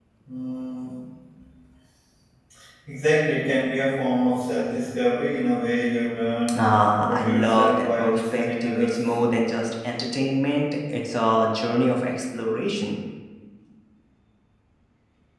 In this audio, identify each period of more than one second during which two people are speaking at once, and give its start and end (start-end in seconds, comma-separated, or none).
6.6-9.1